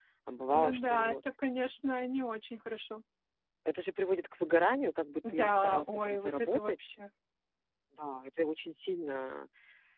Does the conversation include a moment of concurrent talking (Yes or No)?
Yes